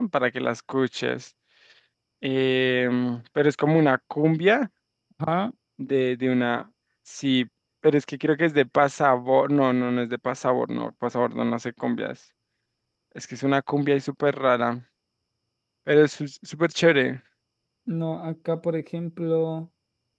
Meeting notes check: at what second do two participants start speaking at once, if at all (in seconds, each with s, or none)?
none